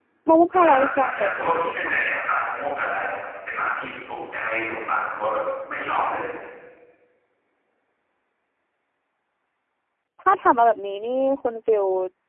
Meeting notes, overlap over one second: present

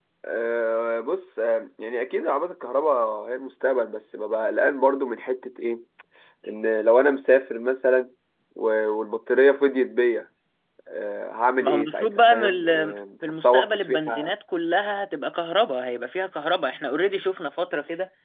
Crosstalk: present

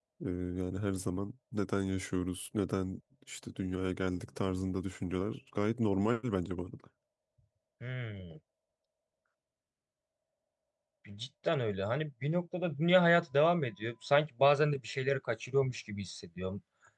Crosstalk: none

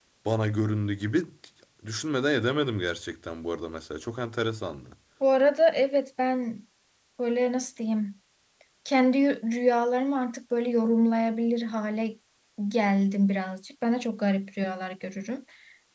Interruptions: none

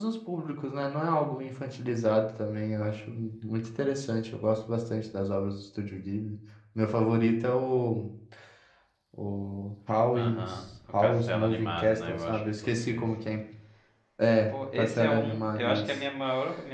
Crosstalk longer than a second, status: present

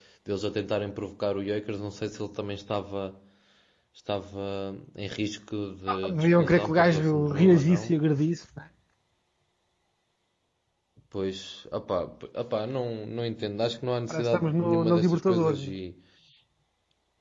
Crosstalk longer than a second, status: present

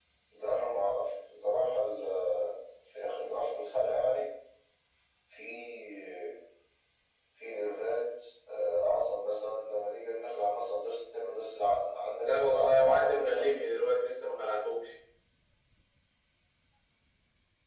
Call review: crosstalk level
present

